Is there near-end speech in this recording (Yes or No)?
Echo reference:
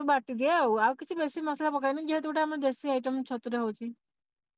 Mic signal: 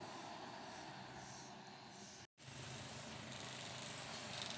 No